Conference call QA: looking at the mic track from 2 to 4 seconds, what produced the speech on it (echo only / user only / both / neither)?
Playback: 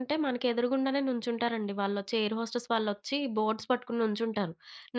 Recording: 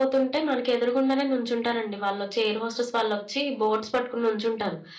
echo only